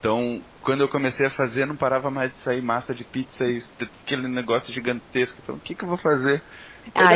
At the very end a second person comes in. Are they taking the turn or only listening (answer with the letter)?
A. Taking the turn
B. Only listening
A